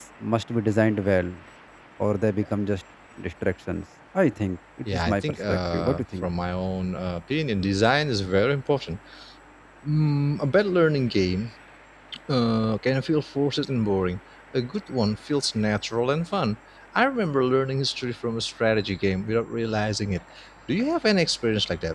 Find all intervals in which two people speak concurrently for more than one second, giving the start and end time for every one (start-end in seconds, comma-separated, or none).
4.9-6.3